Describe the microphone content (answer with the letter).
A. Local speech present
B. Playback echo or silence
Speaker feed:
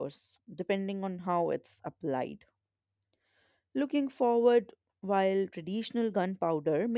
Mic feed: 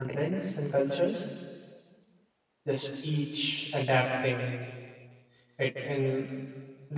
A